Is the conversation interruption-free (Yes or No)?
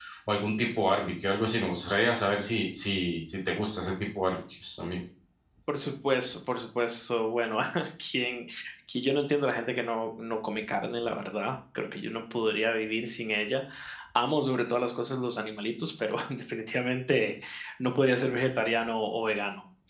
Yes